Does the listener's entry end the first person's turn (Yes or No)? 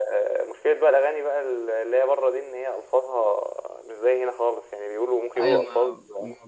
Yes